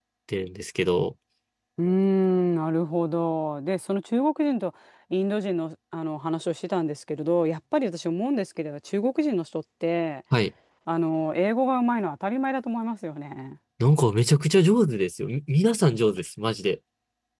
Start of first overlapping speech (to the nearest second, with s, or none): none